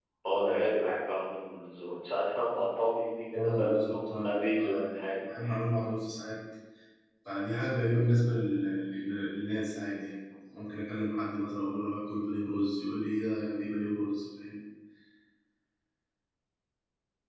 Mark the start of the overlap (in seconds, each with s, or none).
3.3 s